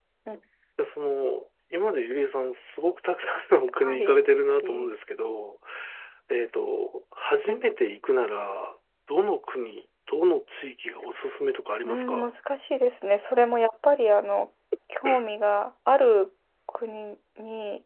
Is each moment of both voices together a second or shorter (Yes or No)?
Yes